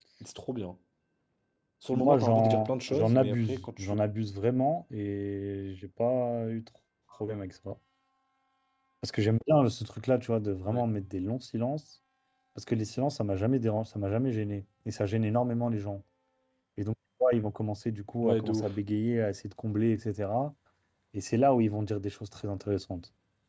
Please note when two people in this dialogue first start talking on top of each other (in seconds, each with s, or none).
1.9 s